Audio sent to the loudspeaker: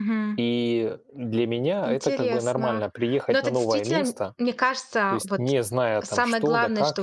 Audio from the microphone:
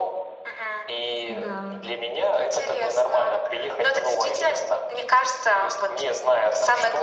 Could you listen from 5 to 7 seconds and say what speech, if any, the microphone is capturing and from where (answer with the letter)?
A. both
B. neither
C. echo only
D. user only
C